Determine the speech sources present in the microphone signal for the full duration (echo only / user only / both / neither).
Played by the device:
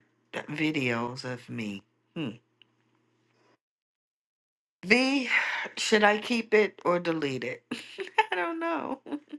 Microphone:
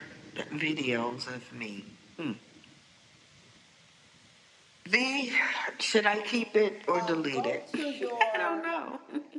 both